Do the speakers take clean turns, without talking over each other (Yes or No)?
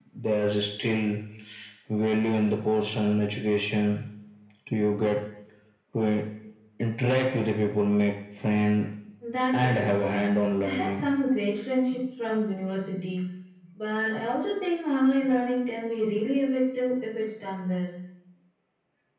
No